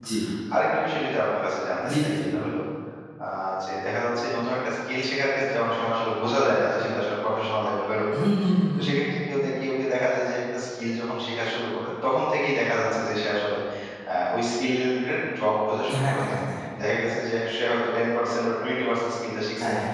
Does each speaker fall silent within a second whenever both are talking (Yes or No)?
Yes